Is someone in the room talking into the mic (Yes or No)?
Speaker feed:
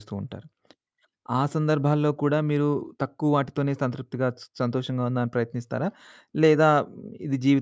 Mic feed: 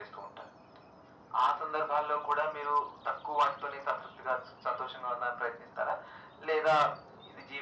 No